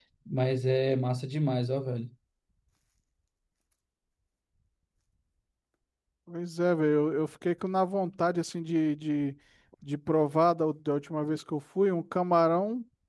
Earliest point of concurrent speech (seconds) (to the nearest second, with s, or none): none